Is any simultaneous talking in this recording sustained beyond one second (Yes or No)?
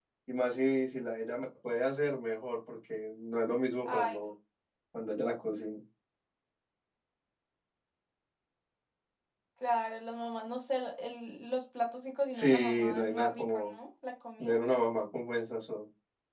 Yes